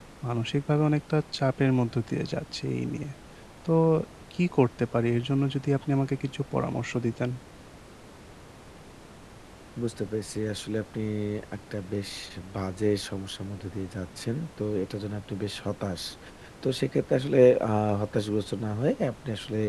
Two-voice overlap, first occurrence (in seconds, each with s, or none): none